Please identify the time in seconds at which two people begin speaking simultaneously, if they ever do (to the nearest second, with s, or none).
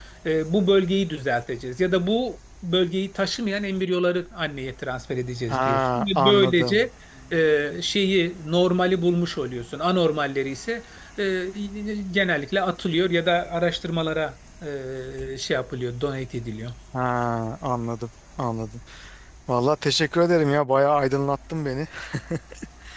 5 s